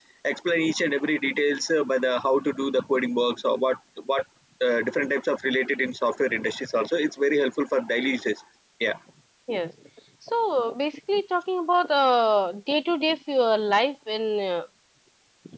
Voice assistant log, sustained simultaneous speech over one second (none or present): none